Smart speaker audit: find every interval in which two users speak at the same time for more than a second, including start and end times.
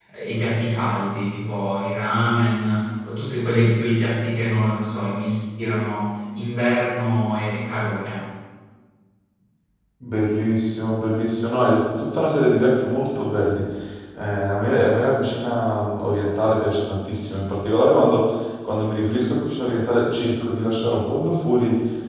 none

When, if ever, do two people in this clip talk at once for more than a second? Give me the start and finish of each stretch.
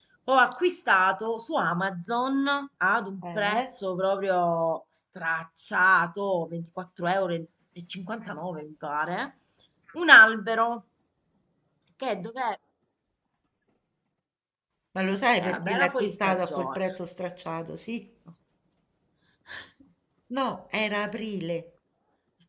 15.4-16.8

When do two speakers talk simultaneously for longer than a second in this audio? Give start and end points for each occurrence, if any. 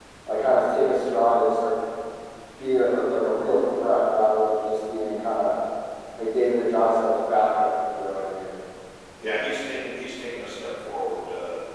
none

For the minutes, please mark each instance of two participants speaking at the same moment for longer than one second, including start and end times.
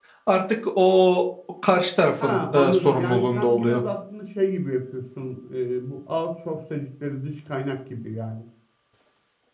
2.2-3.8

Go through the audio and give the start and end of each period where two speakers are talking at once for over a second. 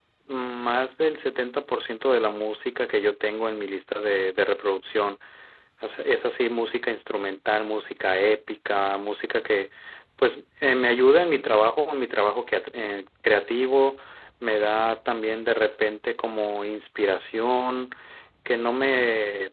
none

